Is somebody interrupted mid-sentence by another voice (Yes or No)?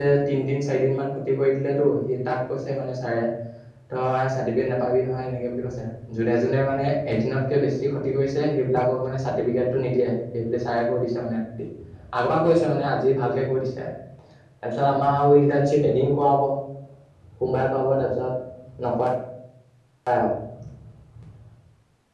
No